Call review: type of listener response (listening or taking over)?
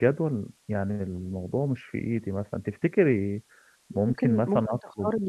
taking over